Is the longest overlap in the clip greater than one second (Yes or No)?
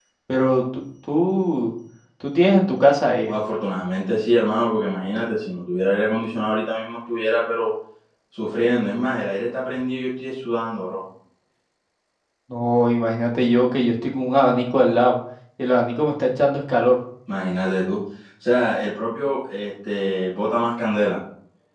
No